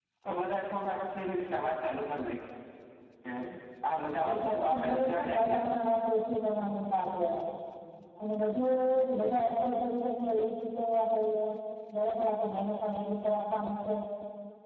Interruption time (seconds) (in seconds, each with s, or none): 4.3 s